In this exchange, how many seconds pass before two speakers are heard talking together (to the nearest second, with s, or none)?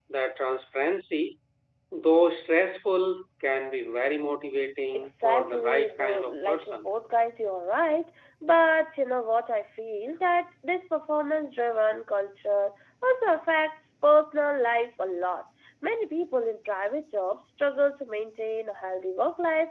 5 s